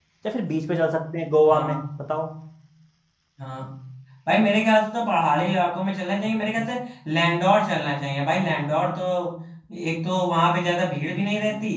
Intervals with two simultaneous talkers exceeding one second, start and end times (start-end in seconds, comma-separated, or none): none